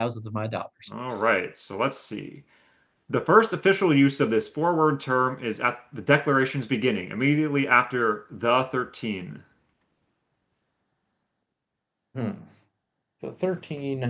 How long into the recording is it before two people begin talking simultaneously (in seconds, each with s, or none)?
none